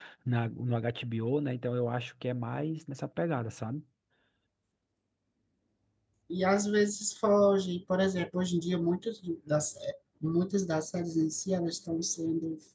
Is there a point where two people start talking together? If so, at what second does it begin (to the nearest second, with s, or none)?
none